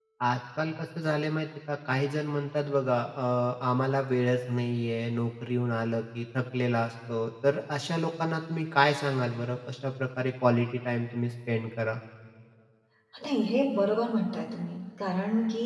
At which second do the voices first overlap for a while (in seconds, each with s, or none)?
none